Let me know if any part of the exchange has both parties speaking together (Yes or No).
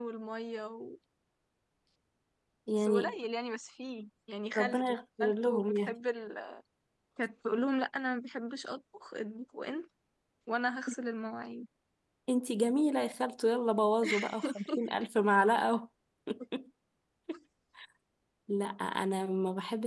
Yes